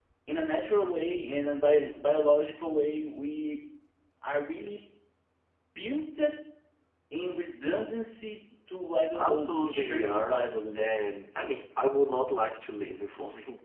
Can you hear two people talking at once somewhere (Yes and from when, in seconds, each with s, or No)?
Yes, from 9.2 s